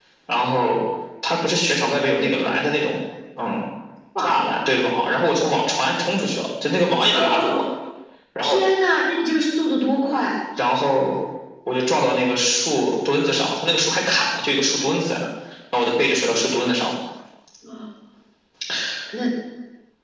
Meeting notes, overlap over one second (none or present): none